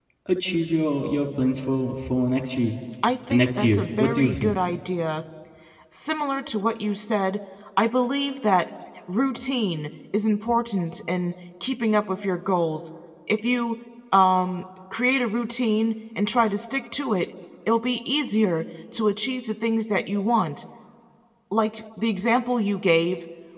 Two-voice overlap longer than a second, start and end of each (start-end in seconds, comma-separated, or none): 3.3-4.5